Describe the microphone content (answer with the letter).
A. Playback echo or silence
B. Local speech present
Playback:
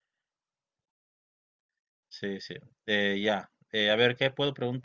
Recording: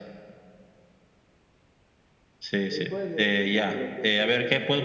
B